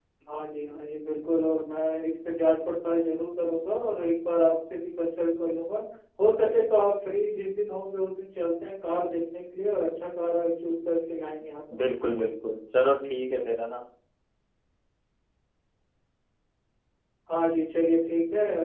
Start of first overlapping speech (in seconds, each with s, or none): none